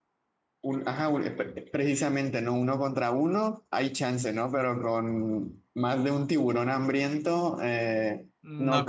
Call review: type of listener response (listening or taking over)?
taking over